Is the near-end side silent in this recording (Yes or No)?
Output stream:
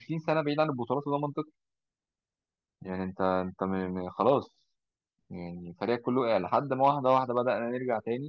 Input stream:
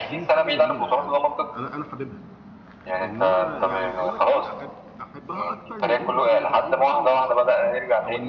No